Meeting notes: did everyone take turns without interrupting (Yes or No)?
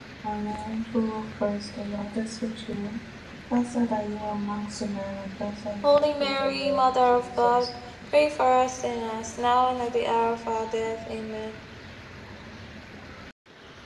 No